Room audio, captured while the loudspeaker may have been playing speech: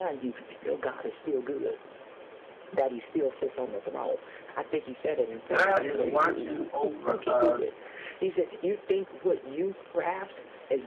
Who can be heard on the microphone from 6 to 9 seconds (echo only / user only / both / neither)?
both